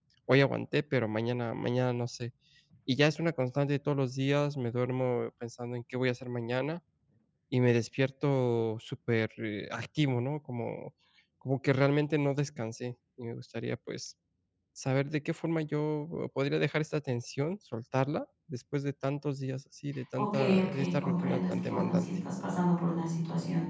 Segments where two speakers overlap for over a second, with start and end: 20.2-22.1

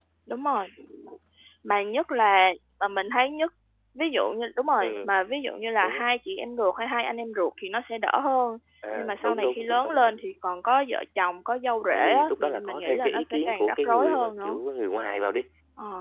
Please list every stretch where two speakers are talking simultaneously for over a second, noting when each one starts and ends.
9.0-10.2, 11.9-14.6

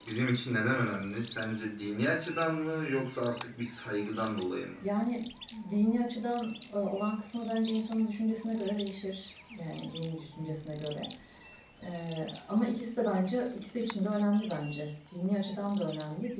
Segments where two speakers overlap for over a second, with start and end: none

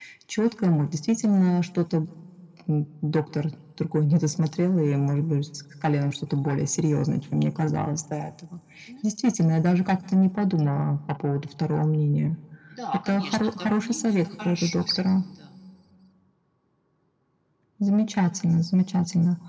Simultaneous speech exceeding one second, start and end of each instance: 13.1-15.0

